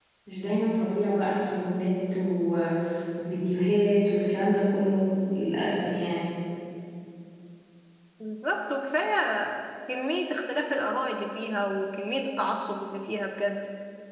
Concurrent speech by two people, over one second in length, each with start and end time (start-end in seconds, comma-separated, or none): none